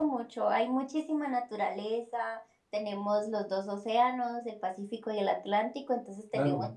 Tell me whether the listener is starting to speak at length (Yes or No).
No